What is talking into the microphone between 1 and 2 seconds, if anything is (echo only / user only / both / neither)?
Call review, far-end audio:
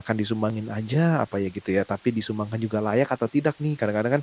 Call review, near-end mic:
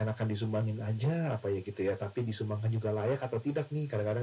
echo only